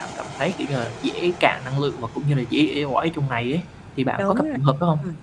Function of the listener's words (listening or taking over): taking over